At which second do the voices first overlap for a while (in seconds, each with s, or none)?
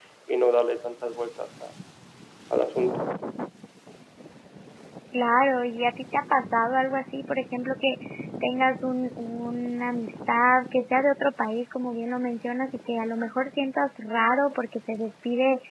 none